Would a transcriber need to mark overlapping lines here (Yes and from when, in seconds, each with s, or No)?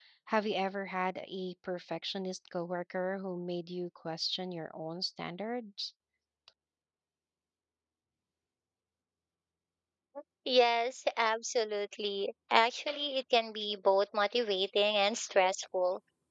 No